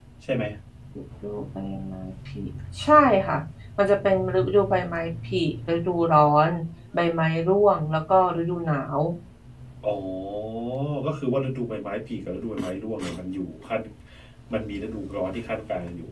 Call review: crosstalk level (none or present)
none